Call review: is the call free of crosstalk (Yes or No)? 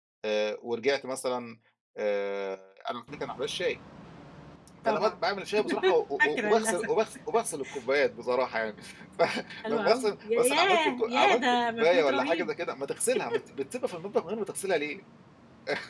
No